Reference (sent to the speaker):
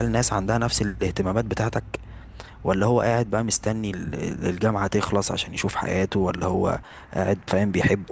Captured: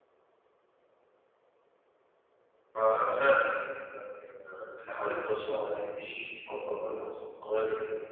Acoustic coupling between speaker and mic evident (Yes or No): No